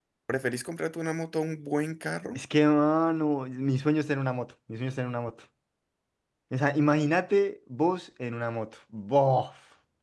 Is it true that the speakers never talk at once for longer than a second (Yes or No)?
Yes